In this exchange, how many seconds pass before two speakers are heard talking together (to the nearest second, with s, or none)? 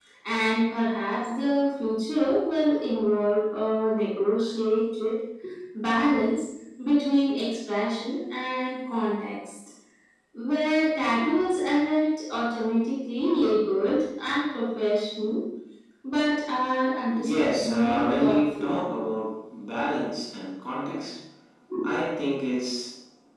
17 s